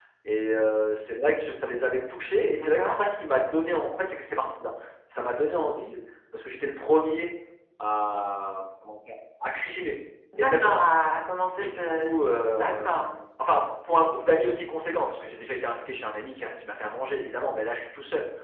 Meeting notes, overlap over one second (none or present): none